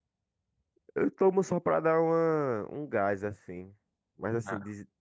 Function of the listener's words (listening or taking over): listening